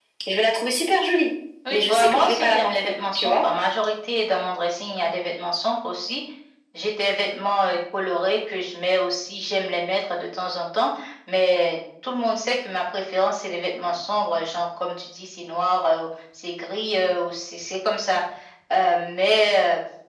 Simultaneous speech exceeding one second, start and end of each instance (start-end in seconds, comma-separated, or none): 1.7-3.4